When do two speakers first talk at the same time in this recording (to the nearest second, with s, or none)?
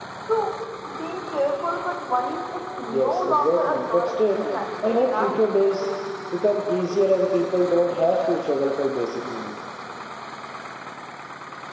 3 s